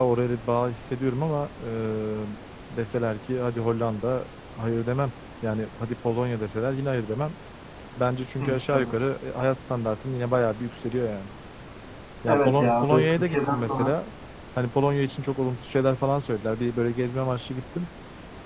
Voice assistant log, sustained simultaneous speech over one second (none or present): present